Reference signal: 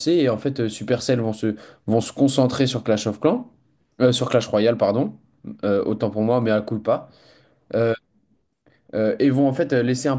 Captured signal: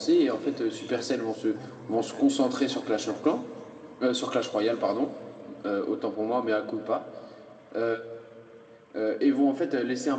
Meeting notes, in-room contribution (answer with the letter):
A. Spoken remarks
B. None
A